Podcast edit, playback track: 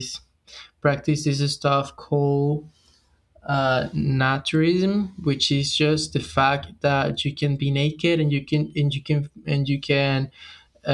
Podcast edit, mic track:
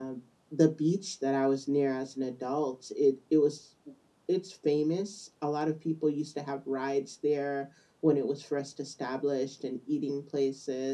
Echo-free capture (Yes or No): Yes